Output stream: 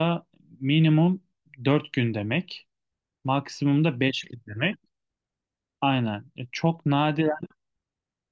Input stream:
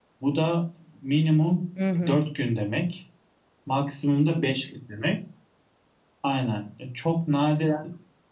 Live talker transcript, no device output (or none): Hı hı.